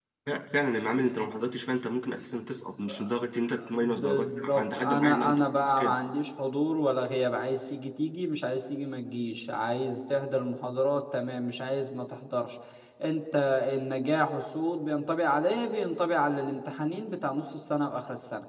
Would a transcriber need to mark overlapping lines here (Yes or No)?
Yes